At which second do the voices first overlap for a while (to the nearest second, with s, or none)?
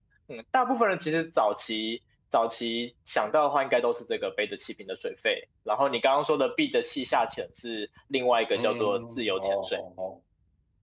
9 s